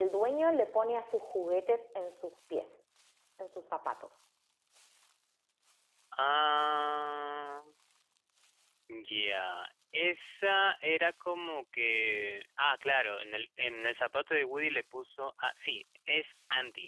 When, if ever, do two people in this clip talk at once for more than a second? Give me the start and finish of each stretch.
none

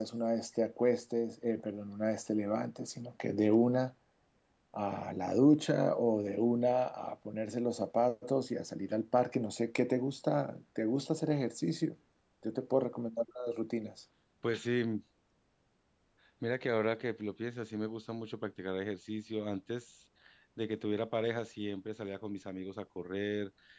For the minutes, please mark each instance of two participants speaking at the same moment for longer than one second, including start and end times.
none

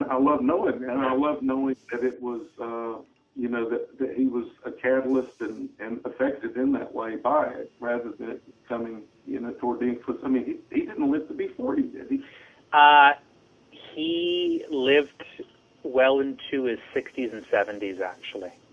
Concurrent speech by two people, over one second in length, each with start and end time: none

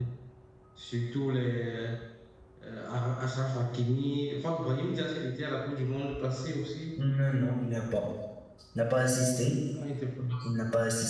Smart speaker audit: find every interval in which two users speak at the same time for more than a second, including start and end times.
none

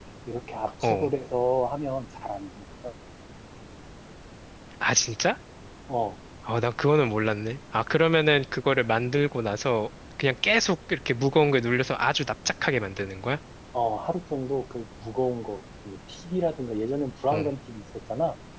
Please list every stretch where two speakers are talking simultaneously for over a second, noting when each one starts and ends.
none

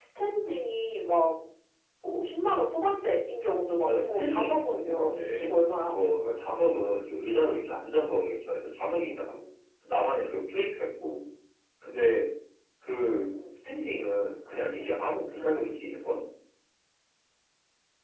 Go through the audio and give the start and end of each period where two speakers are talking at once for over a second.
3.9-6.0

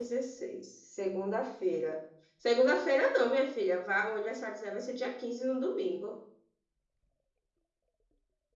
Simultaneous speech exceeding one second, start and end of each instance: none

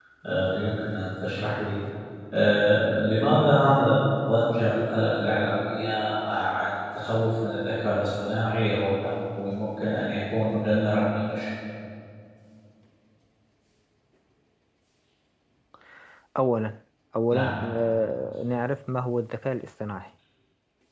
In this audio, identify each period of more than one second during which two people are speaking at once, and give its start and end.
none

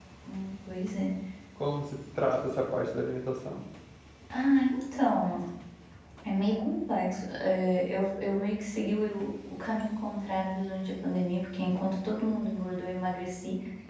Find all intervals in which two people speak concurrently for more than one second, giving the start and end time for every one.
none

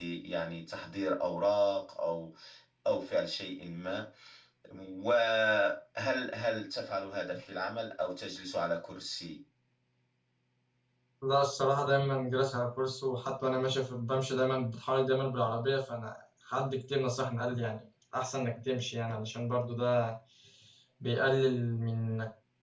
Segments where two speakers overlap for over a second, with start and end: none

